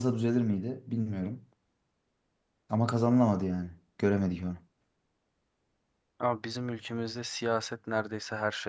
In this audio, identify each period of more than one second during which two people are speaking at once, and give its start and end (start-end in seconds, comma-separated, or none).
none